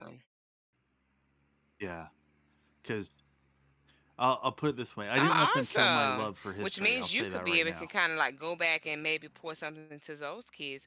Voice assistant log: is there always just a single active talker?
No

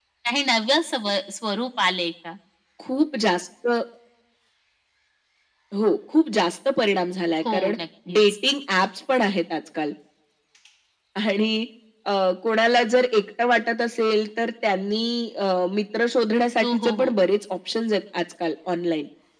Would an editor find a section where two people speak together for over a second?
No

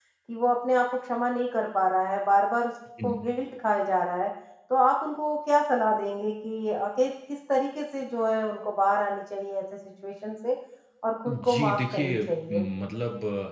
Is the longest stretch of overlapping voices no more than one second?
No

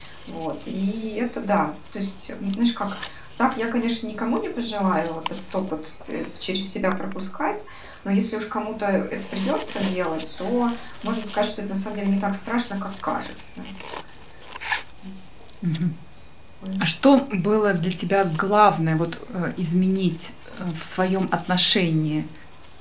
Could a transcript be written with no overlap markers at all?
Yes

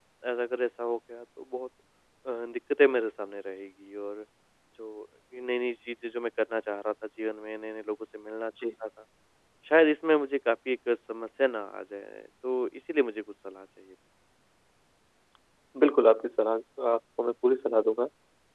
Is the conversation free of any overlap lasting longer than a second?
Yes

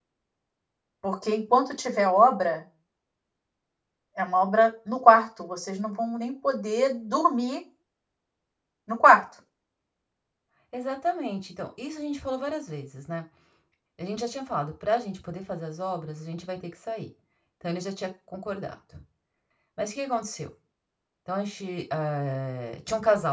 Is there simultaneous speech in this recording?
No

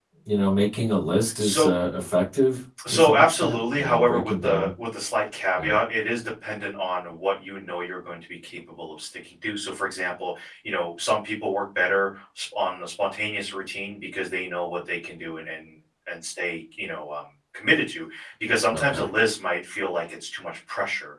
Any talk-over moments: Yes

